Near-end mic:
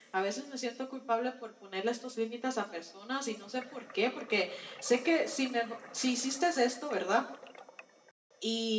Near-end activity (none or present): none